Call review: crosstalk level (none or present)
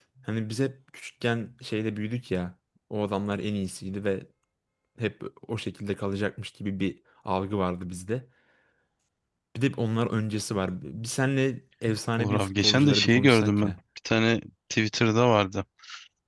present